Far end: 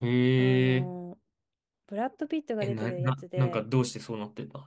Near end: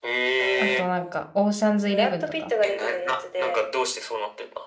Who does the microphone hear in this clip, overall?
both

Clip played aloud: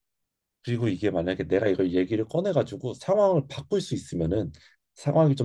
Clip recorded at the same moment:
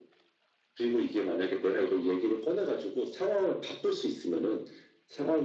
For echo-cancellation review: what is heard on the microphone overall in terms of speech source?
echo only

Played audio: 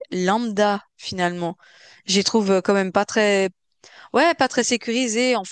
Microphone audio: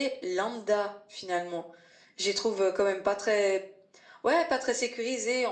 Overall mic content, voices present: echo only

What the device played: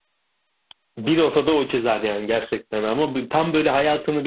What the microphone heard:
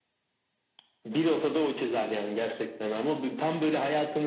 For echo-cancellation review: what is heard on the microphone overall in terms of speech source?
echo only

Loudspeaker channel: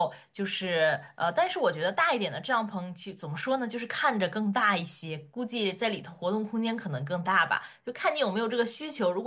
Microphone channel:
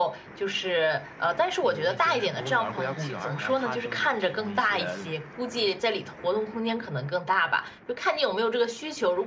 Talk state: both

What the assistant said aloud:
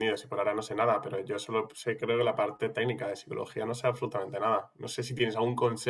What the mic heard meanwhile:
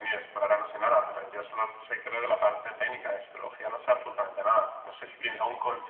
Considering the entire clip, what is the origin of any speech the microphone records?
echo only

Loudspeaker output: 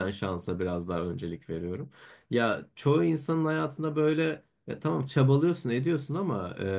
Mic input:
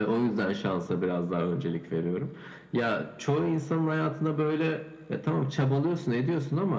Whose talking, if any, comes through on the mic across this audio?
echo only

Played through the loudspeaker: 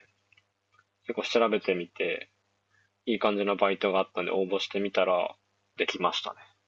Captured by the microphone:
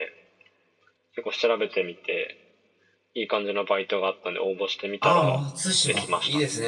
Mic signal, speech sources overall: both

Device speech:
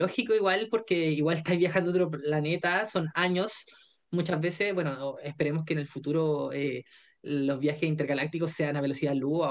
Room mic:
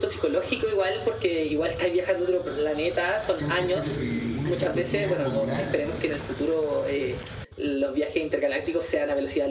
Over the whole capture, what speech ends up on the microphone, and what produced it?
both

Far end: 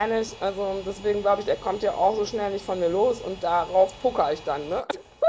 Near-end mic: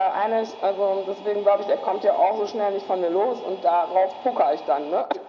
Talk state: echo only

